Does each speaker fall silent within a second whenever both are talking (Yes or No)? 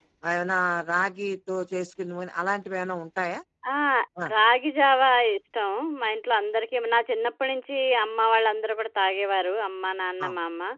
Yes